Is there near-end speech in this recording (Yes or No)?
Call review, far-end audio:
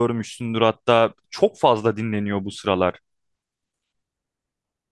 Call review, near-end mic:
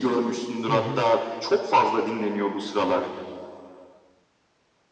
Yes